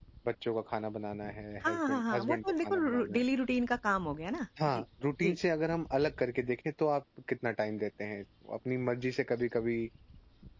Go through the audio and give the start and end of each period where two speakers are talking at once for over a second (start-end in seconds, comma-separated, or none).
1.6-3.2